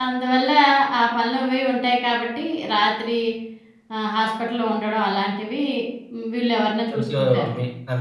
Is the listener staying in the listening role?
No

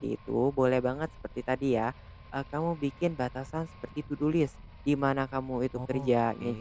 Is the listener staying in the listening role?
Yes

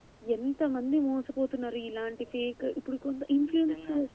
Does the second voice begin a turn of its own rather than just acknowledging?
No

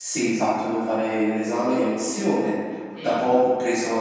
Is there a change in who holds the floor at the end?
No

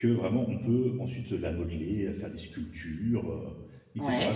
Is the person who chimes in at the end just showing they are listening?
Yes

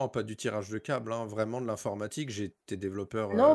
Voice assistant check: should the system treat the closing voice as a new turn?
Yes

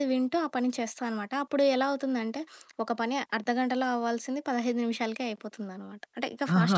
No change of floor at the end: No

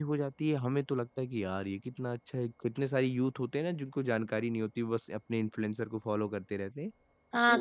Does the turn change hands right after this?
Yes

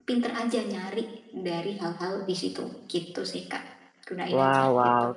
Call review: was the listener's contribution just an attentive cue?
No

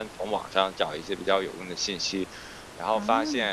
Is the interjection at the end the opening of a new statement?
No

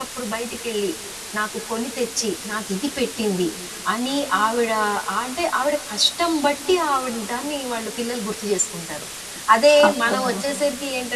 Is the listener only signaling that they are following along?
Yes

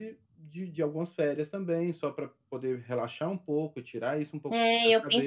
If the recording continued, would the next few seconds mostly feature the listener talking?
Yes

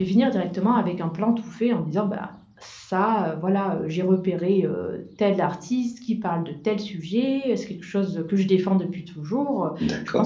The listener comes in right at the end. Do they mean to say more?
No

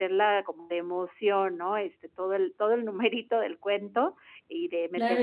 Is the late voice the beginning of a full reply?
Yes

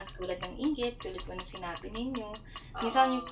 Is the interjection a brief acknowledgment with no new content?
Yes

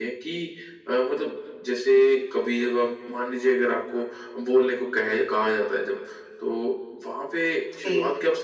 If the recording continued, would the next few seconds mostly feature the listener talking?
No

